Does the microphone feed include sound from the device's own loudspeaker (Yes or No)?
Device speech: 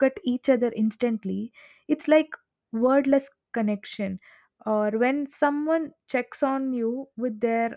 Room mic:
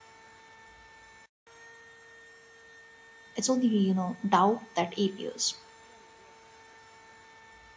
No